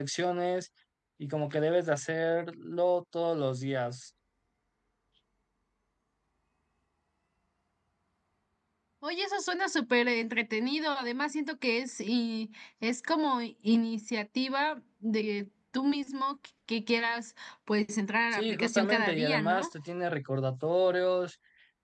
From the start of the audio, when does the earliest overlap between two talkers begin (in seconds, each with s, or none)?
18.3 s